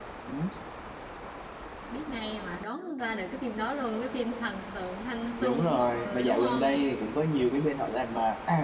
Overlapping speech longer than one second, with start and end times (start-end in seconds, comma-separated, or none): 5.4-6.8